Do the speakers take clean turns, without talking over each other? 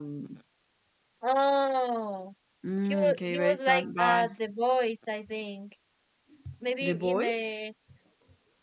No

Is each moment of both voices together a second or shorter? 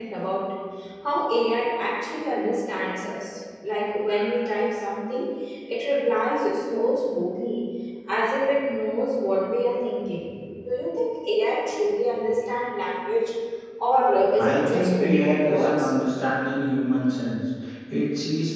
No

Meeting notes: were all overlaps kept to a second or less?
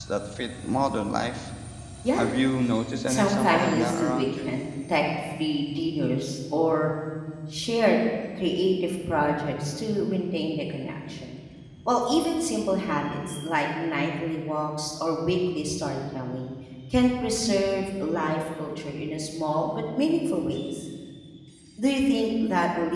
No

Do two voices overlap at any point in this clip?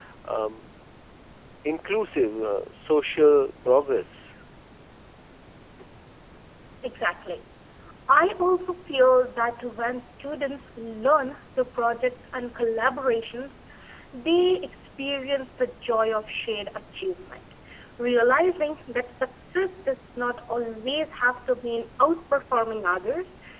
No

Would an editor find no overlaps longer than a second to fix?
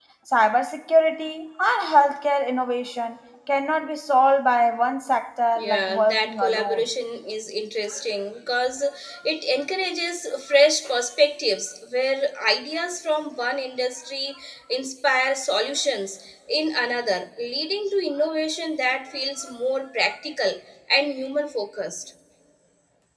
No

